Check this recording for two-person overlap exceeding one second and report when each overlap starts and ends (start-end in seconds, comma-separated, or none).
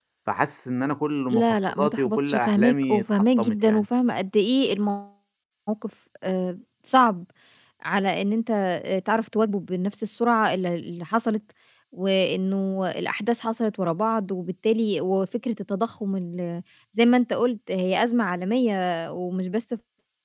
1.3-3.8